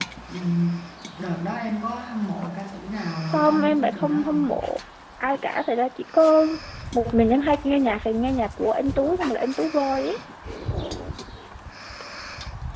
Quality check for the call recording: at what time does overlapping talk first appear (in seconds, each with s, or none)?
3.3 s